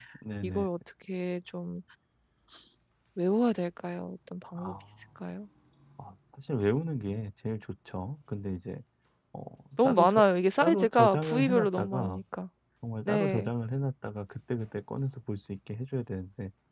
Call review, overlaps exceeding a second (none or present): present